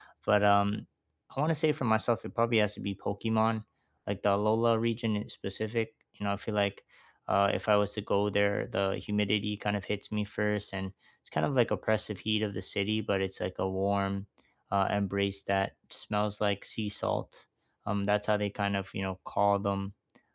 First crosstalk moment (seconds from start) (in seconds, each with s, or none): none